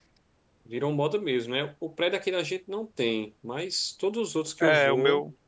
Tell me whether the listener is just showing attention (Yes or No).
No